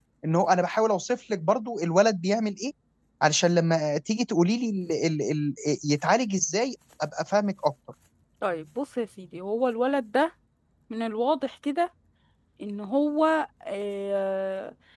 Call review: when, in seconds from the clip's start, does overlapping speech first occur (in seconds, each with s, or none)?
none